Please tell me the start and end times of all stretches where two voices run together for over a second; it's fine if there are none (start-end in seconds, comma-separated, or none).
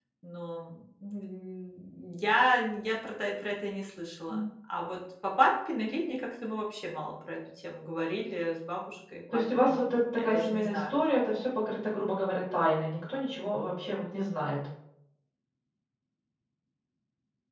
9.3-11.0